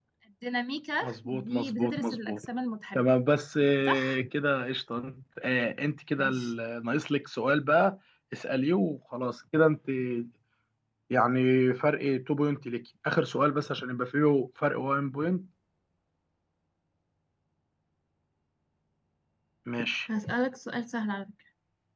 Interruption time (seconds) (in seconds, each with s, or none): 1.0 s